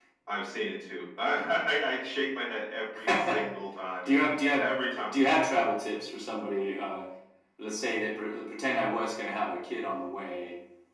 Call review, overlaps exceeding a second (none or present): none